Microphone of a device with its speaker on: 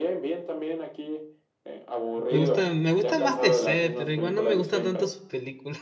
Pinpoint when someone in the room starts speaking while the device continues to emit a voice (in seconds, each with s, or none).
2.3 s